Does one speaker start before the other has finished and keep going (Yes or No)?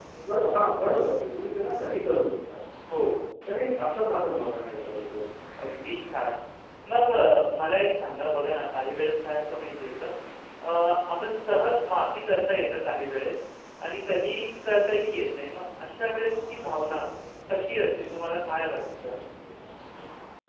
No